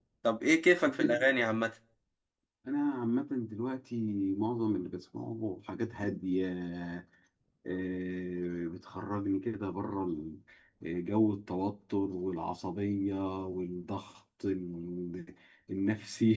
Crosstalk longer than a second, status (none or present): none